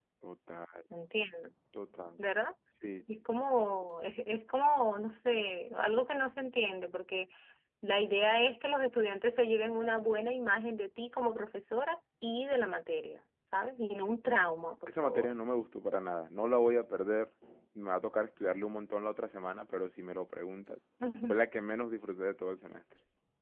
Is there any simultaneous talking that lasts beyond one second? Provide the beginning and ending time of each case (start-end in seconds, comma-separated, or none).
none